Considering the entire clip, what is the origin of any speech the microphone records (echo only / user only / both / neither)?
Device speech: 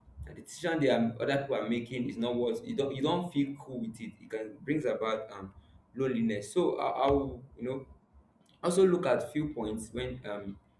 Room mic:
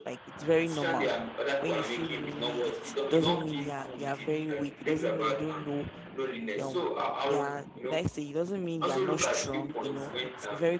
both